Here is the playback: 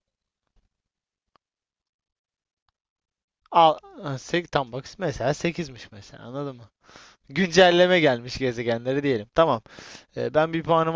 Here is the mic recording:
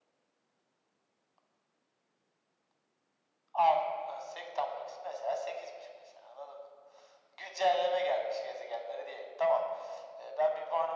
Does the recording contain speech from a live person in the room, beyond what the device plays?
No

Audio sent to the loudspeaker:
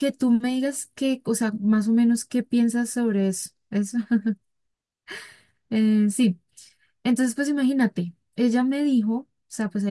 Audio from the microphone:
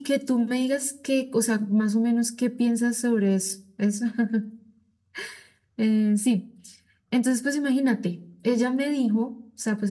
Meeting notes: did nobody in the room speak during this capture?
Yes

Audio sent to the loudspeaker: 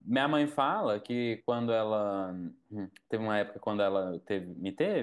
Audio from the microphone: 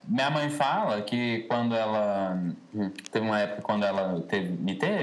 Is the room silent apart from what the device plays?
Yes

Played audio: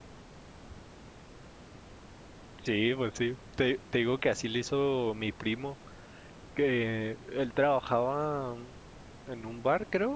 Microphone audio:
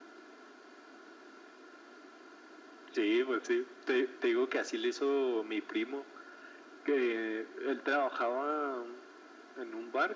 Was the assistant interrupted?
No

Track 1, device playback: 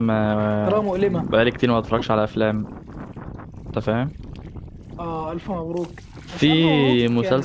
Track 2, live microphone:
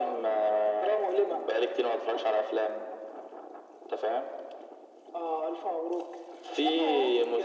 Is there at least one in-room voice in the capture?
No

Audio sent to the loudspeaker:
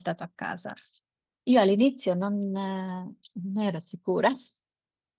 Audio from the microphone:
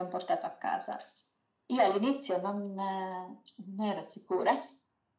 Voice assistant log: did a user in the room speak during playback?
No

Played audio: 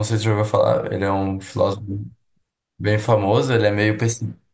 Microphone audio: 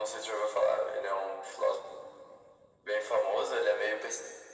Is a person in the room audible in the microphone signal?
No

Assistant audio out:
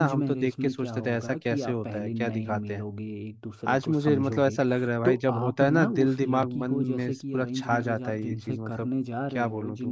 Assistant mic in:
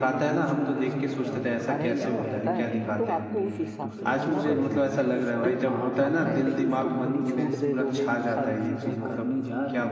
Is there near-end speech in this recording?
Yes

